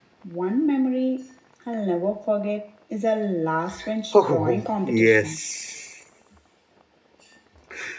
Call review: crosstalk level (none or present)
present